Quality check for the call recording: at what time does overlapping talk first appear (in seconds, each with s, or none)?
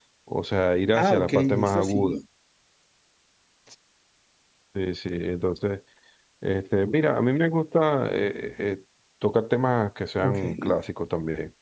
0.9 s